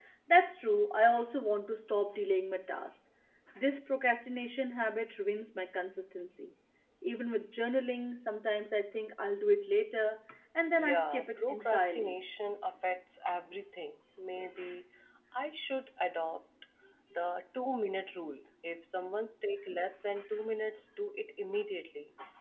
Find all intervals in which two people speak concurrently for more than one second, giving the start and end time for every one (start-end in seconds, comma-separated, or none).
10.8-12.1